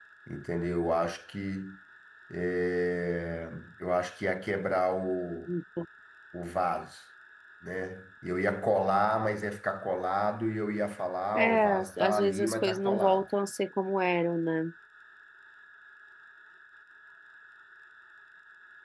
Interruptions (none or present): present